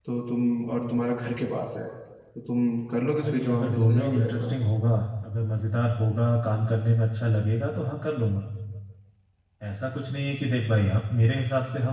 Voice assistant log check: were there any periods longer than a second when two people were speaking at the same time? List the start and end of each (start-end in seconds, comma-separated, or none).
3.2-4.5